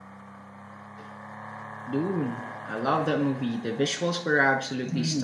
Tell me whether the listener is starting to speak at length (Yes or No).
Yes